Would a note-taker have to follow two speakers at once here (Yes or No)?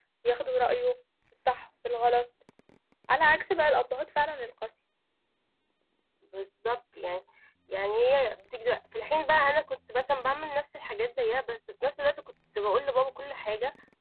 No